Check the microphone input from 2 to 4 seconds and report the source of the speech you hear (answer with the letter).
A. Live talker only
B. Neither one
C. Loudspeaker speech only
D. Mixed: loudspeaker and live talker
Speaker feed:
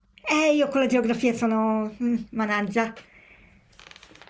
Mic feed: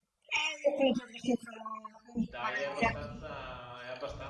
D